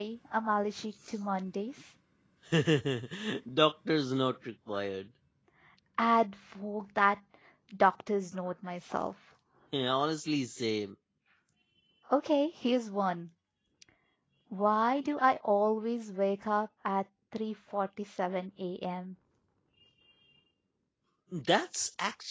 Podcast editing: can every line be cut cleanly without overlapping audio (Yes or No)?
Yes